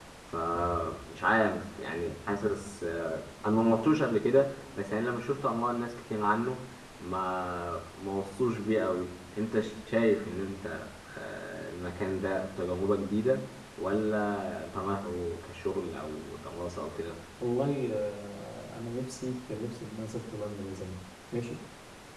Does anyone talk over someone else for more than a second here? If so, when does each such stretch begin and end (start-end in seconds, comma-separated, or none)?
none